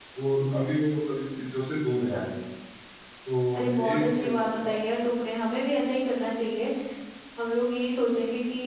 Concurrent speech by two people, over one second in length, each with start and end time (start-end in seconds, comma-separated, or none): 3.5-4.8